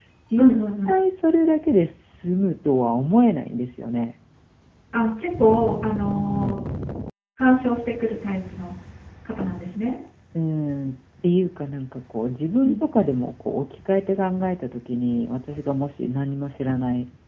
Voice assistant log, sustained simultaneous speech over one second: none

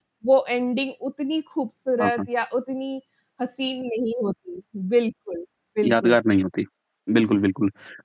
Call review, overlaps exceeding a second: none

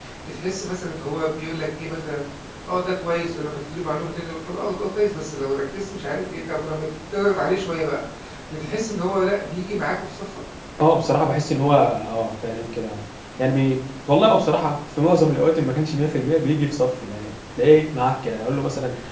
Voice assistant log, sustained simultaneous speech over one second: none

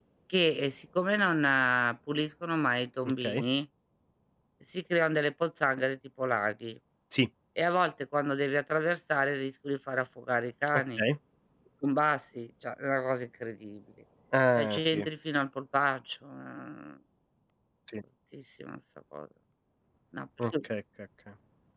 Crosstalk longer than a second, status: none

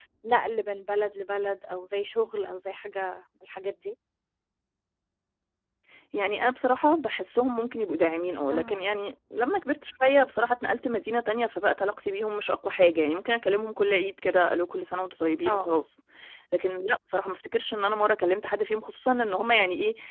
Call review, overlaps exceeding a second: none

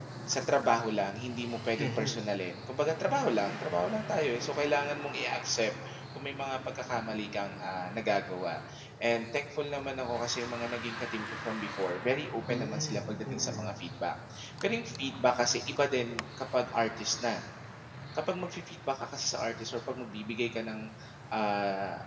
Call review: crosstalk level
present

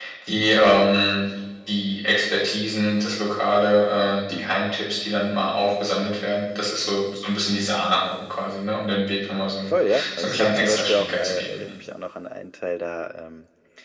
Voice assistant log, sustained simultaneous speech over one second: present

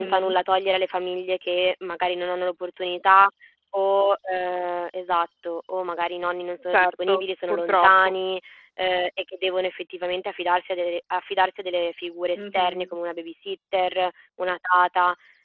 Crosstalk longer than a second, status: present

